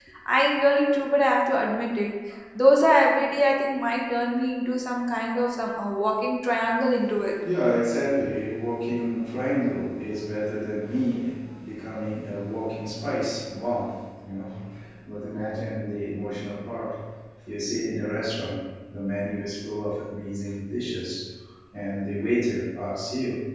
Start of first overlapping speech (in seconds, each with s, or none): none